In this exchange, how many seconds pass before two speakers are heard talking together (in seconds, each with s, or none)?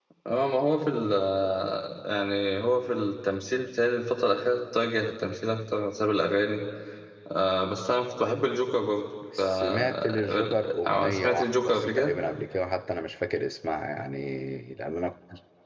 9.3 s